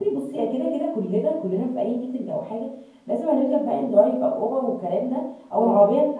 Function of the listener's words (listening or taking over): listening